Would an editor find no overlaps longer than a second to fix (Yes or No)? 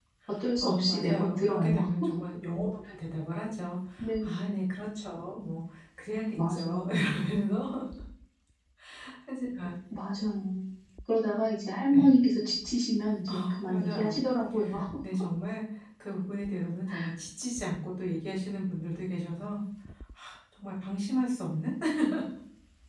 No